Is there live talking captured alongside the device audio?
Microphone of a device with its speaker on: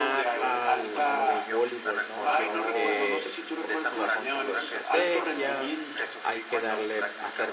Yes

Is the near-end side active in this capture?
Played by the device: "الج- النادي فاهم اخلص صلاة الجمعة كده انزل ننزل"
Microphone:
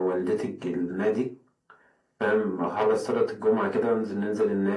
No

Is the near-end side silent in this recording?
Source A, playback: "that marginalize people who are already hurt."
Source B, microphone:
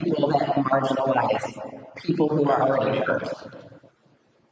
No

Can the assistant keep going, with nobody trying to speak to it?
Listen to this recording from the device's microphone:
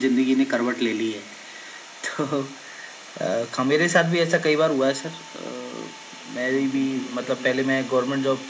No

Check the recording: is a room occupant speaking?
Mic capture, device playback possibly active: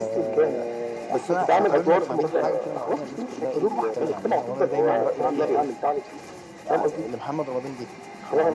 Yes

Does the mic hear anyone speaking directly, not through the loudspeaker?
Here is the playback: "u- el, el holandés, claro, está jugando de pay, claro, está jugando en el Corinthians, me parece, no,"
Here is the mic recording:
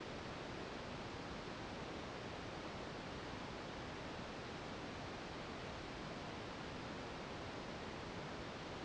No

